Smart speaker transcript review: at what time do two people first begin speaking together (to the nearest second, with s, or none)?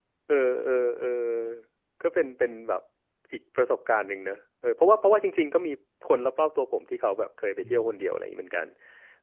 none